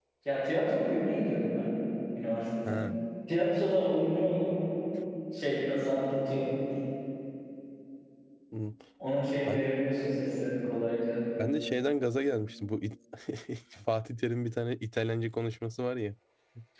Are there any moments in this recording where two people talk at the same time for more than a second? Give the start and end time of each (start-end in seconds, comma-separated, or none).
none